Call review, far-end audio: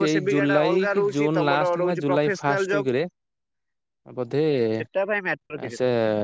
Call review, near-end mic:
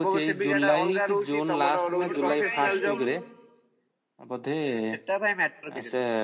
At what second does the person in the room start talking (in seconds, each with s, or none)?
2.0 s